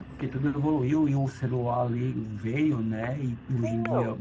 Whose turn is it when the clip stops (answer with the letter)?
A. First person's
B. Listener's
A